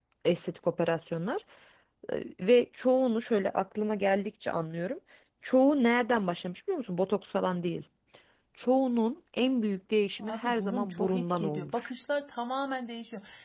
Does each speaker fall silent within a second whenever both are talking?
No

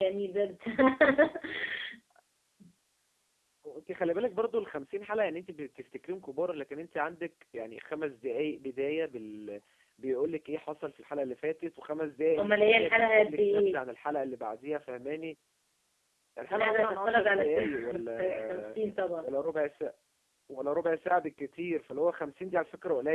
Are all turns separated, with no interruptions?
No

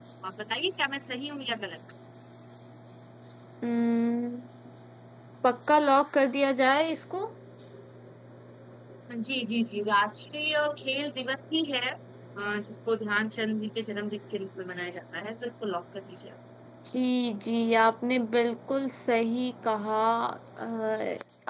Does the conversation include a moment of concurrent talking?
No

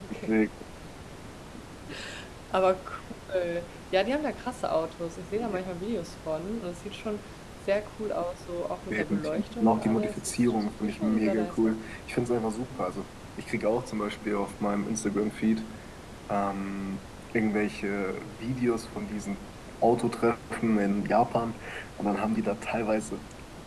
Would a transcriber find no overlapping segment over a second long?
No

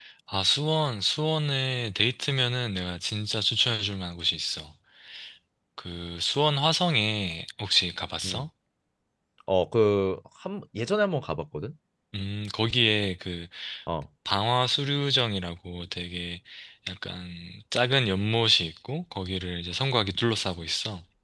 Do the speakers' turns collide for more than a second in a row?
No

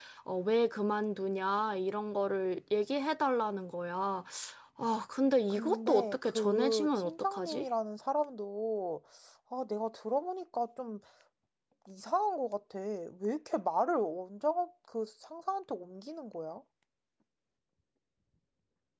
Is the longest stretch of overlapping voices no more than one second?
No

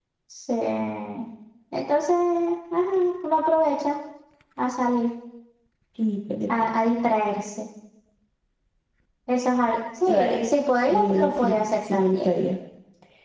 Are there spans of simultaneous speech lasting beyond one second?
Yes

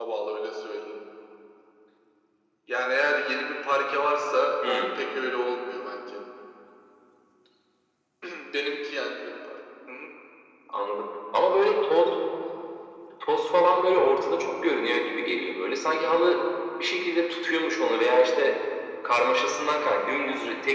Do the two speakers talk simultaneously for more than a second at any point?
No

